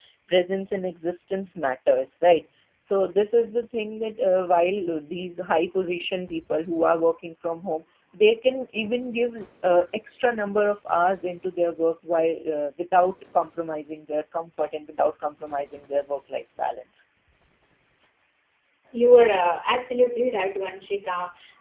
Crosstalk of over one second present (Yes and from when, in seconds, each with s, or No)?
No